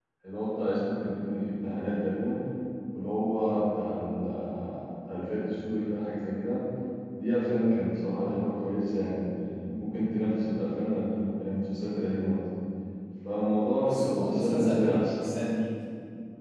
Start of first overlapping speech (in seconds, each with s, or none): 13.8 s